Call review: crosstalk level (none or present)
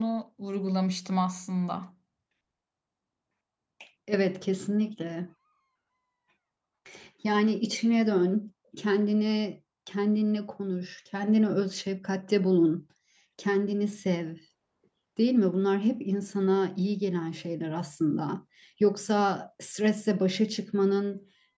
none